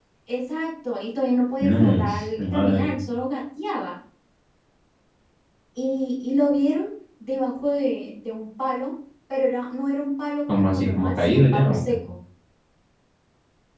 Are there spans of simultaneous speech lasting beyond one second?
Yes, from 1.6 s

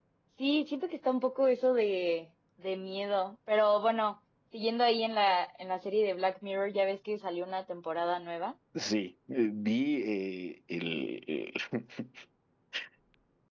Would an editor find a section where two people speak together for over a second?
No

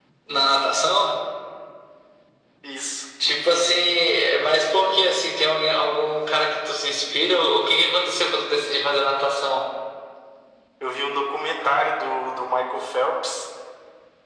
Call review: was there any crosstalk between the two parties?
No

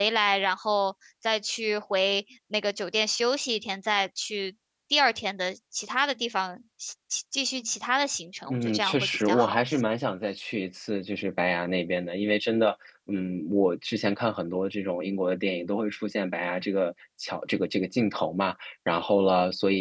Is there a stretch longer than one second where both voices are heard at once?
Yes, from 8.5 s

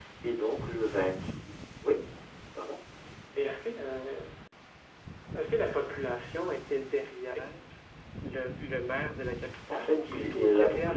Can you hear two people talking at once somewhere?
Yes, from 9.7 s

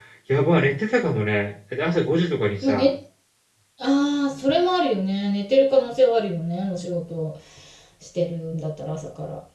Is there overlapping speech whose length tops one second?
No

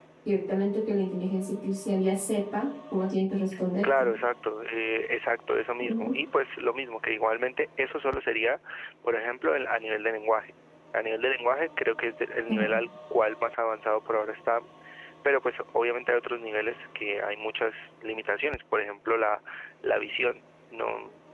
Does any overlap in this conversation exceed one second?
No

